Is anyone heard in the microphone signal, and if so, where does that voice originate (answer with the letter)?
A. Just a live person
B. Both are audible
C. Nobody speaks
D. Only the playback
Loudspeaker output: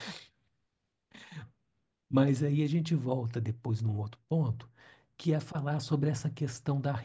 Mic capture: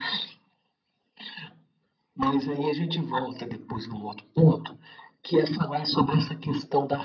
D